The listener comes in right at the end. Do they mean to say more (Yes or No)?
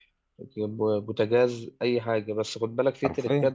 No